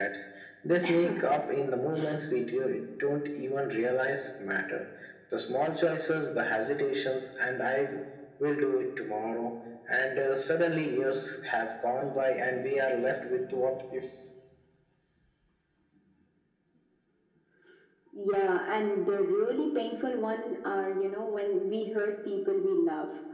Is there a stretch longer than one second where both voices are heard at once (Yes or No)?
No